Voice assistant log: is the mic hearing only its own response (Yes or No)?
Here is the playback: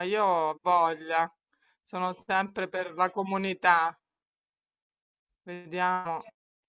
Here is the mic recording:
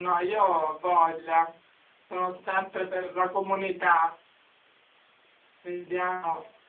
Yes